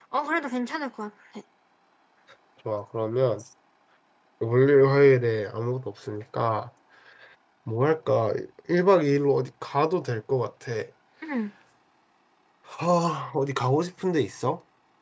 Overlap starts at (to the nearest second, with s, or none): none